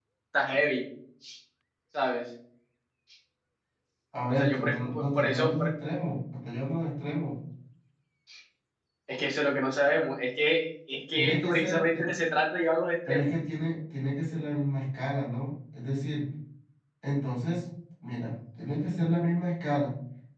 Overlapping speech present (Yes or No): Yes